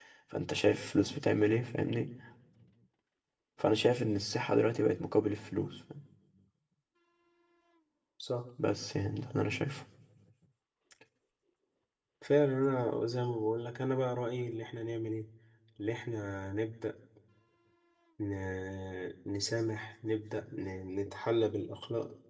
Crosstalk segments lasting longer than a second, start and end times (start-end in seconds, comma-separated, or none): none